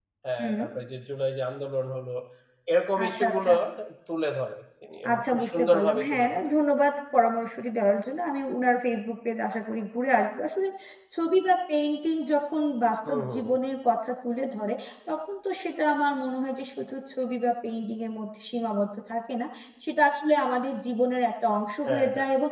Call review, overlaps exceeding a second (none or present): present